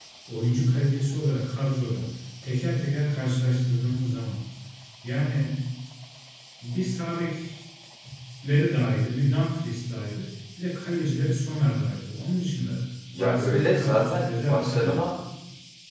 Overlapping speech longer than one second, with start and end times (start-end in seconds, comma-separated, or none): 13.2-15.1